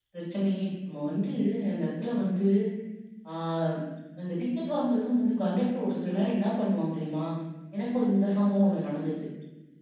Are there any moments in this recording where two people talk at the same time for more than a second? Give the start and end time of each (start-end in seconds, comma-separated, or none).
none